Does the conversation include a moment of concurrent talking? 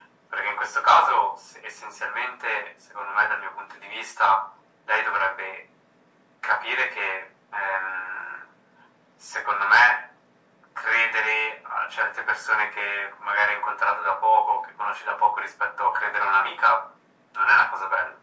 No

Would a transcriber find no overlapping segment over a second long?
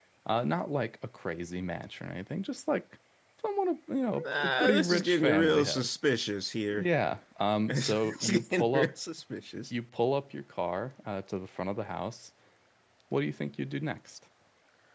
No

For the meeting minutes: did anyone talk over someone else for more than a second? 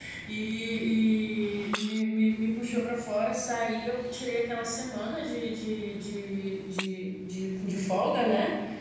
No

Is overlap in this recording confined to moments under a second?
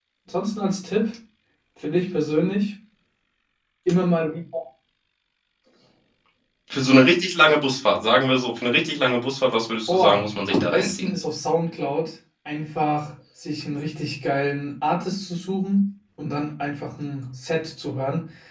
No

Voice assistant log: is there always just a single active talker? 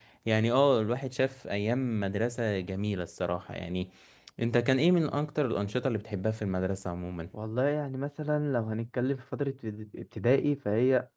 Yes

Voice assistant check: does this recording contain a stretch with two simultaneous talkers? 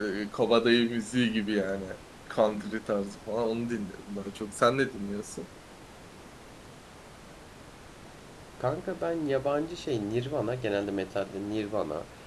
No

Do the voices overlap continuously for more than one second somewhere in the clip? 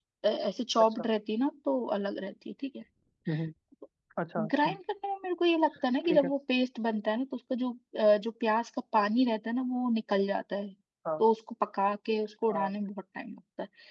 No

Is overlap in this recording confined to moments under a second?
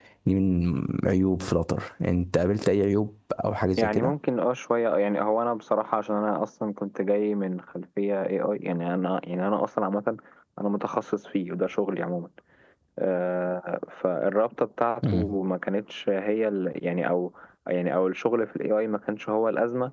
Yes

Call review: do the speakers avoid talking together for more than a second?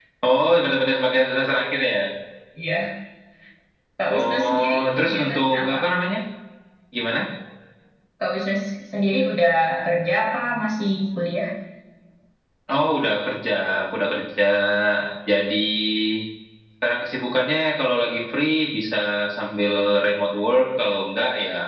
No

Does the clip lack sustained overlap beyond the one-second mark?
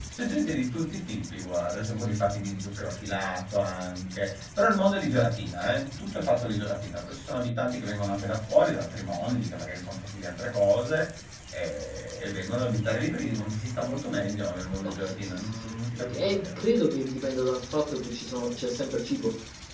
No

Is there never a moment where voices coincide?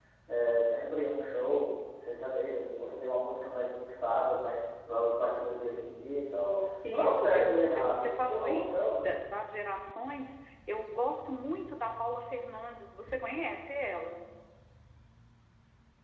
No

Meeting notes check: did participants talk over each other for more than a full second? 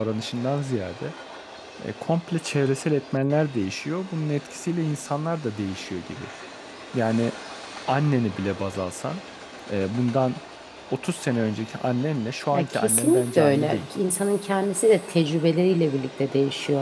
Yes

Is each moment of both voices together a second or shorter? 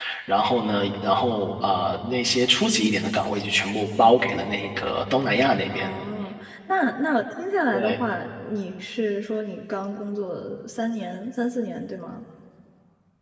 Yes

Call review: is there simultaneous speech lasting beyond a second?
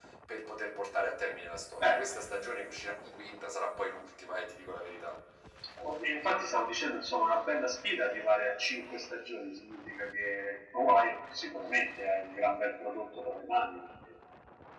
No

